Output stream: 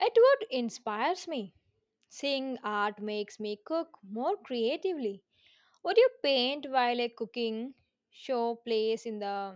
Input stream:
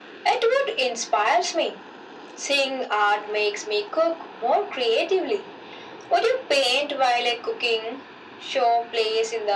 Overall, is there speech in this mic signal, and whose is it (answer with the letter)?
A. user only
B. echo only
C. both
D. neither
B